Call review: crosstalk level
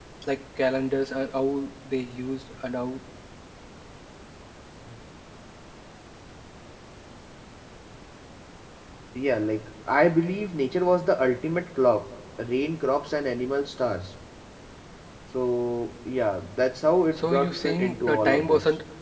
present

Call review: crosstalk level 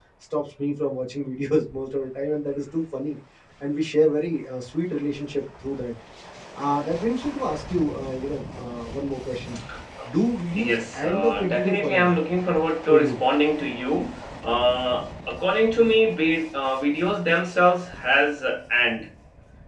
present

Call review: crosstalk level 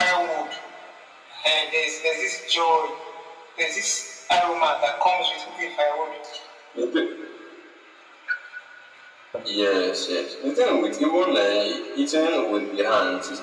none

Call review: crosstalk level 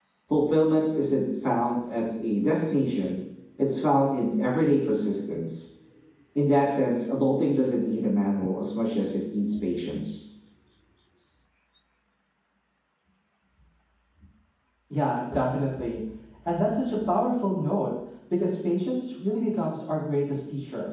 none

